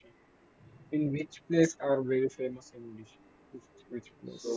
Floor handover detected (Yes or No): Yes